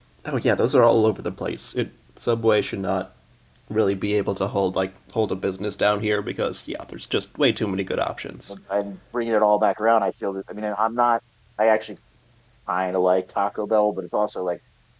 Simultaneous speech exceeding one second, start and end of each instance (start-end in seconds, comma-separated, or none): none